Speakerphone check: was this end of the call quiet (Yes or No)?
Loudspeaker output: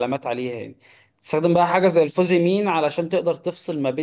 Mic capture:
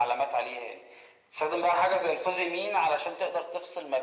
Yes